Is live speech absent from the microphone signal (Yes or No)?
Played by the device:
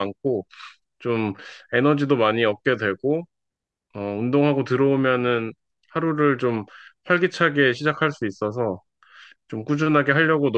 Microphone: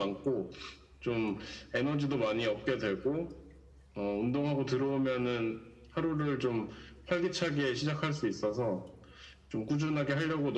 Yes